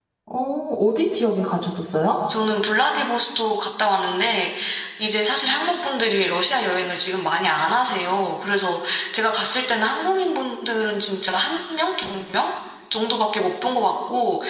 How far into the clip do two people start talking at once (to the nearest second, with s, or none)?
none